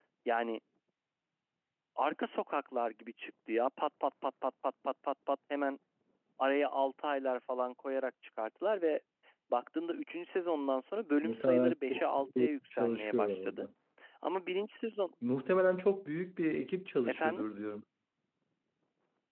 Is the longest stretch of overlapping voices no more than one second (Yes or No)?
No